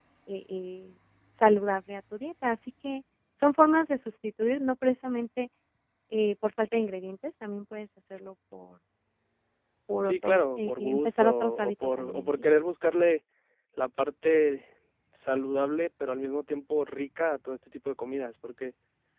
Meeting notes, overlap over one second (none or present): present